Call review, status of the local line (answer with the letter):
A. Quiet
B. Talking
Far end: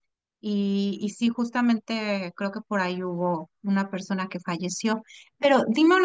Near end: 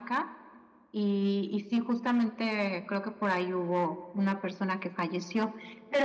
A